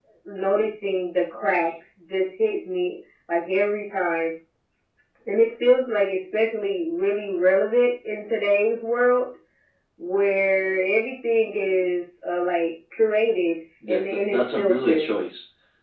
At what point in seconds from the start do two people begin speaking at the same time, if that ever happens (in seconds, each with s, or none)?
13.8 s